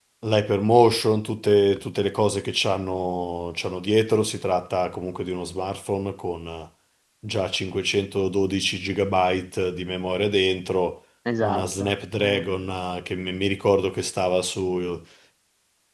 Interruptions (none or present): present